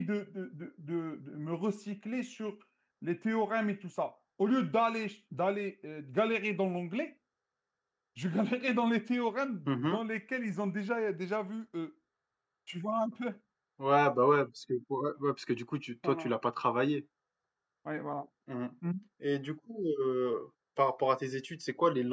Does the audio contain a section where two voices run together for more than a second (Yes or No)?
No